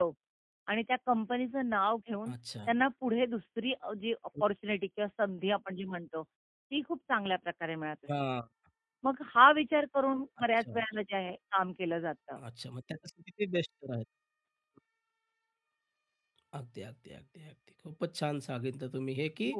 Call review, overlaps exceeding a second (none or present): none